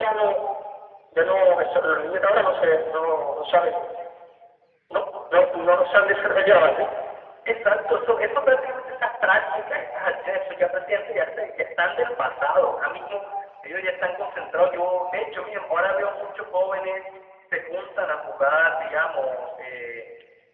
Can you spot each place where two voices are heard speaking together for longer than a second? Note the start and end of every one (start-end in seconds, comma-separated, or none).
none